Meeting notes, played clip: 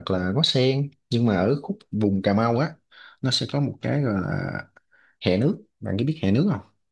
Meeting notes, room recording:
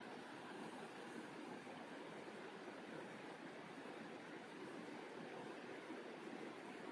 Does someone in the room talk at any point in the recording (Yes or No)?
No